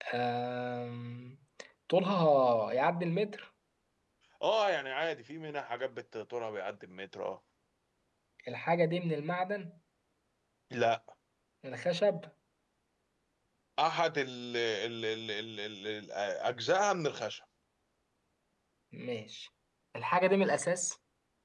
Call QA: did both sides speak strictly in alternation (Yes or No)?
Yes